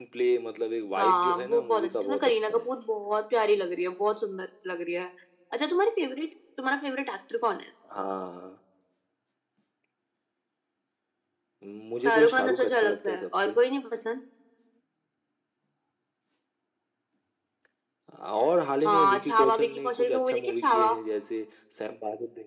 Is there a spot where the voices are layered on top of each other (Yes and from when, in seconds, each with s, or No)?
Yes, from 1.0 s